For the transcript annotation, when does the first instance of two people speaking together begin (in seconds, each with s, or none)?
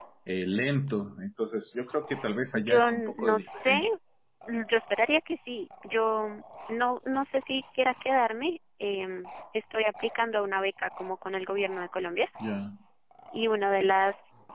2.5 s